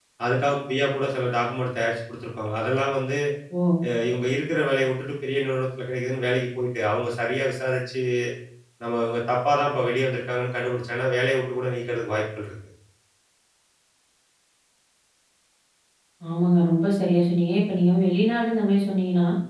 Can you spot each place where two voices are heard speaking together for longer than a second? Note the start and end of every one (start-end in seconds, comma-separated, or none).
none